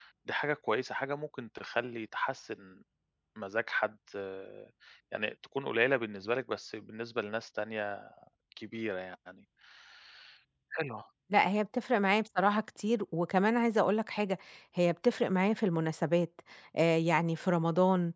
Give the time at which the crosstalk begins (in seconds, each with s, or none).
none